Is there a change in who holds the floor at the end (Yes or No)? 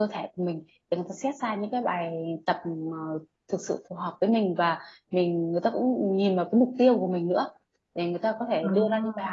No